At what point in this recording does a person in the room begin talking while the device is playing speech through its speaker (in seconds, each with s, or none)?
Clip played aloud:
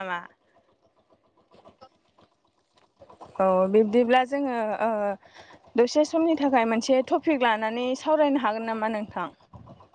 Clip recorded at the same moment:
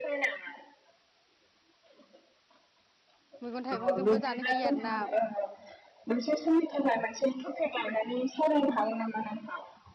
3.4 s